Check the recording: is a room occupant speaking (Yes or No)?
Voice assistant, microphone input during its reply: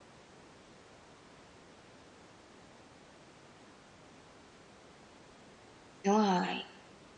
Yes